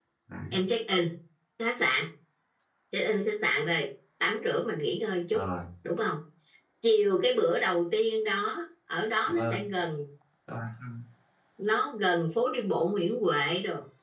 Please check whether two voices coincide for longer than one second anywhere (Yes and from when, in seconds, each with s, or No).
No